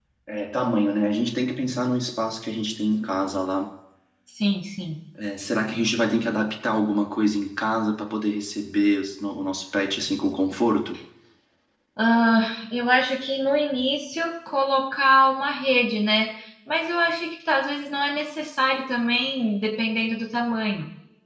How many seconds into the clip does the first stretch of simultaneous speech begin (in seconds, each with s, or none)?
none